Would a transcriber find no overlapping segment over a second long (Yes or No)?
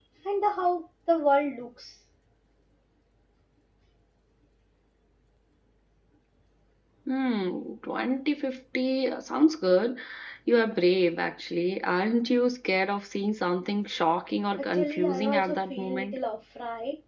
No